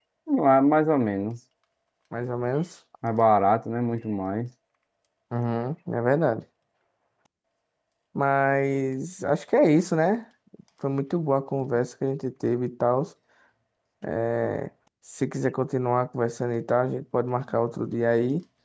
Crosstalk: none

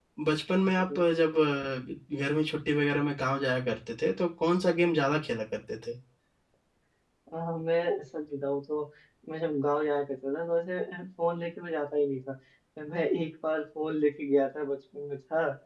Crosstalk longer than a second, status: none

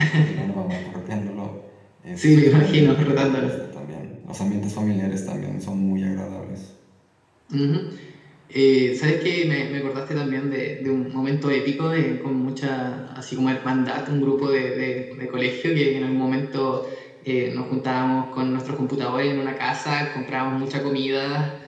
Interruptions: present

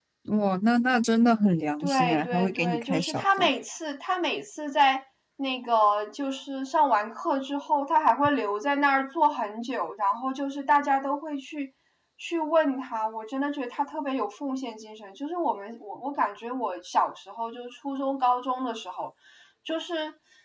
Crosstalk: present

